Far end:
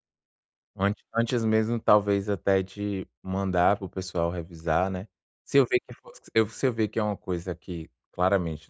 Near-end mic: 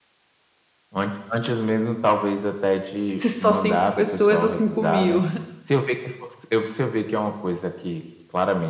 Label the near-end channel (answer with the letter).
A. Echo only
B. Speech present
B